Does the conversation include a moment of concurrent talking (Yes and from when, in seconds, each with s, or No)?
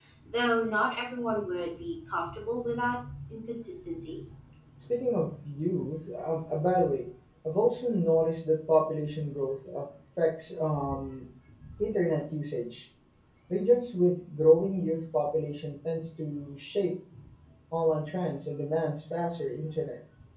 No